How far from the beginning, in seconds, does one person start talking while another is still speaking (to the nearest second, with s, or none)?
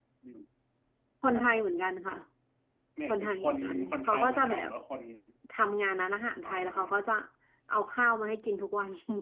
3 s